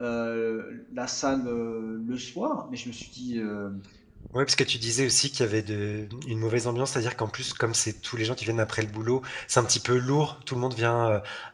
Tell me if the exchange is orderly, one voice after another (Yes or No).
Yes